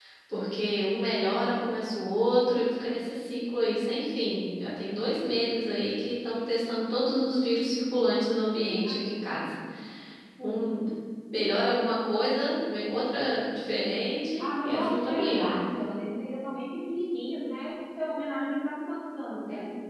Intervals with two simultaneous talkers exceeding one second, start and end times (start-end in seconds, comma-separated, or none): 14.4-15.6